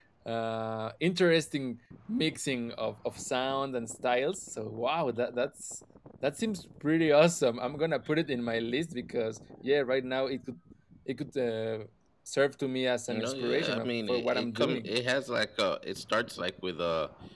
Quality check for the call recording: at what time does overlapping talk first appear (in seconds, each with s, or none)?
13.1 s